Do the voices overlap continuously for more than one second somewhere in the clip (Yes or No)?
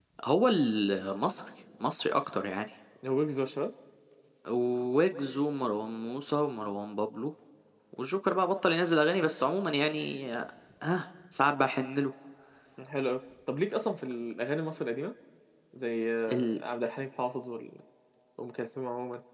No